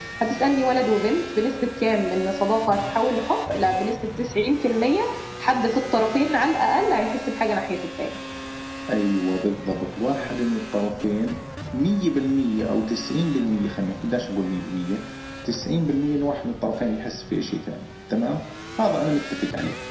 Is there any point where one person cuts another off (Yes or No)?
No